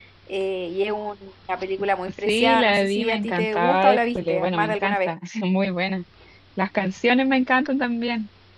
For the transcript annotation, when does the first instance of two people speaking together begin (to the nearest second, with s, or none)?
2 s